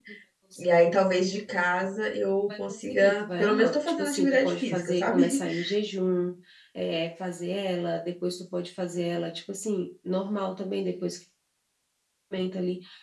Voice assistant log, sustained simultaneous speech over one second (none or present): present